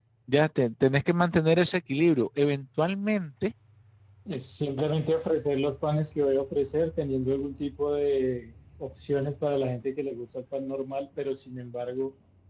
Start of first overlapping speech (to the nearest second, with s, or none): none